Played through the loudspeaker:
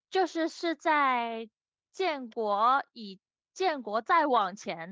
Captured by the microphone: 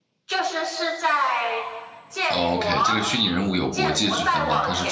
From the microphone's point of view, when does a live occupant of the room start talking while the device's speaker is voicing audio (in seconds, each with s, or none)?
2.3 s